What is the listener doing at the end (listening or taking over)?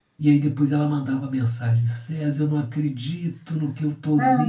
listening